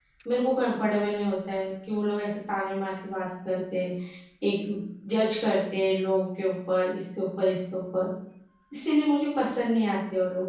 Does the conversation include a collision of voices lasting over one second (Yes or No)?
No